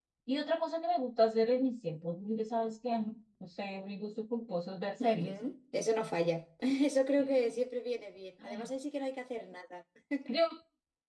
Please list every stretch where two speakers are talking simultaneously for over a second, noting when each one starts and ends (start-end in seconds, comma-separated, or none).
none